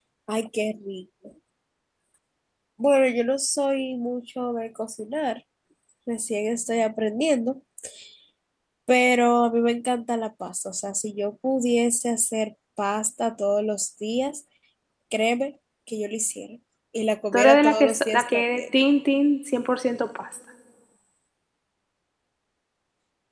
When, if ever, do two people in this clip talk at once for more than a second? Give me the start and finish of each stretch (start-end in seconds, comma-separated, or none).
17.3-18.6